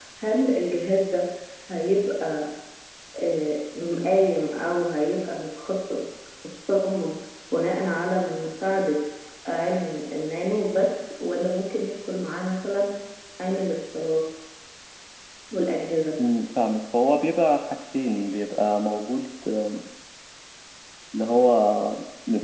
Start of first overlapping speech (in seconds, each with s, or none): none